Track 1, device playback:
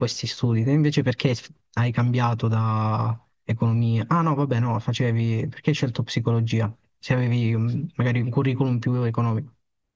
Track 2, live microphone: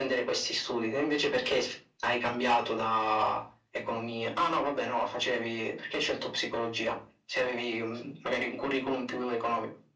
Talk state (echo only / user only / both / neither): echo only